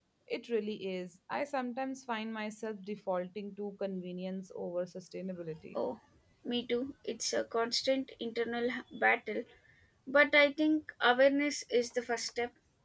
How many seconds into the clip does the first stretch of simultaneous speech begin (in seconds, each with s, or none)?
none